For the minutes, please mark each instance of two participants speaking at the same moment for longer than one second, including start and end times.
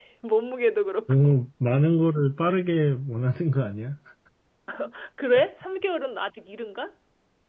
none

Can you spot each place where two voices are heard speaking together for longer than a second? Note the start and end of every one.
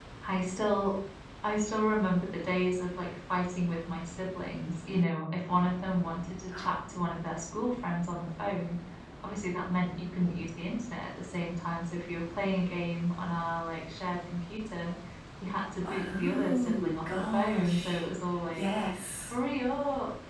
15.8-18.1

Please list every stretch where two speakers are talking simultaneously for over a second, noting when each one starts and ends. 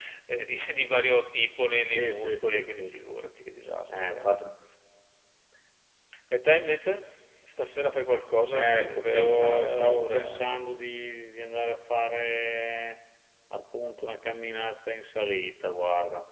1.9-3.4, 8.5-10.5

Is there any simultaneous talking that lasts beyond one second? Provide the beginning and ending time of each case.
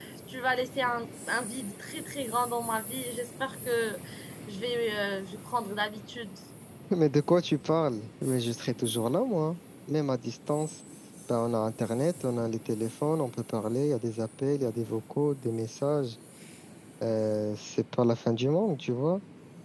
none

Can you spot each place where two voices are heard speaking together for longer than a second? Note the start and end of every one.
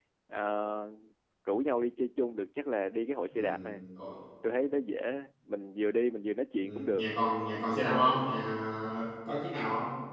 none

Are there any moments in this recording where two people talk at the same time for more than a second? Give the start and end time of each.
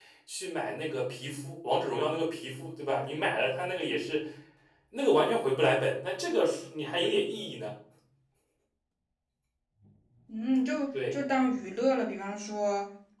none

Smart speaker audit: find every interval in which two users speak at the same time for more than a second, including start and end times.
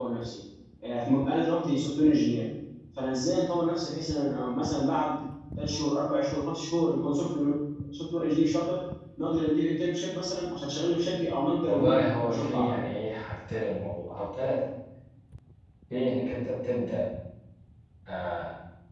11.6-12.8

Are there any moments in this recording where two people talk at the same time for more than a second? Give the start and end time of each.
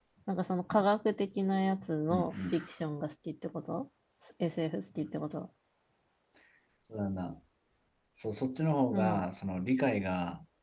none

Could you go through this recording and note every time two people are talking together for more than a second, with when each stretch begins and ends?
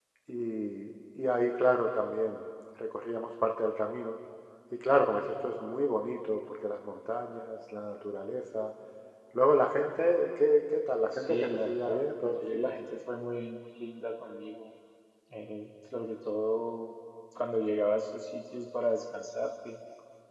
11.2-12.7

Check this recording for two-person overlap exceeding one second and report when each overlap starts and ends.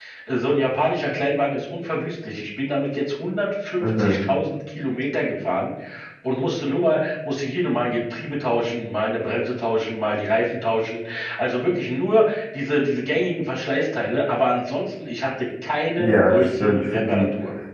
15.9-17.2

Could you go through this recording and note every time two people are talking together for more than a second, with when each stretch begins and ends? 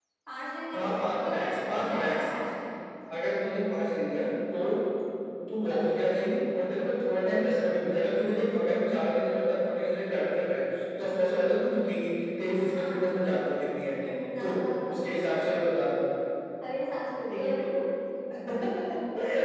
0.7-2.2

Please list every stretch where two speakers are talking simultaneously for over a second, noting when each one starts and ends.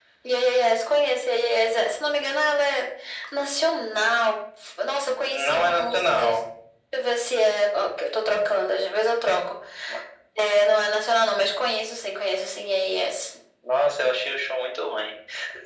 5.2-6.4

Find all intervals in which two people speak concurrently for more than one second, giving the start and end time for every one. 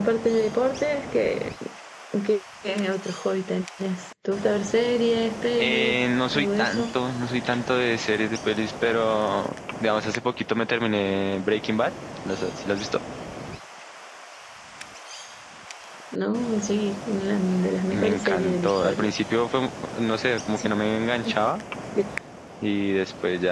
5.6-6.8, 17.9-19.1

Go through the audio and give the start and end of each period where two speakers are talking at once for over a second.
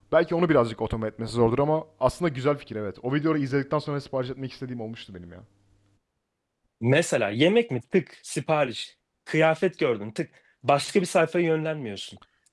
none

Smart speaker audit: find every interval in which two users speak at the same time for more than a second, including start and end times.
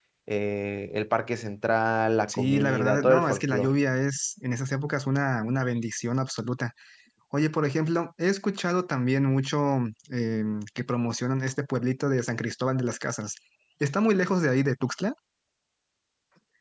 2.3-3.7

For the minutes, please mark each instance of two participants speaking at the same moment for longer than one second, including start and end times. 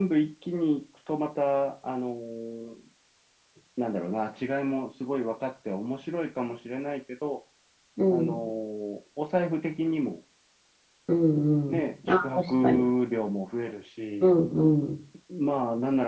11.7-12.9

